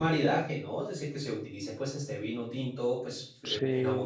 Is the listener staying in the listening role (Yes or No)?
Yes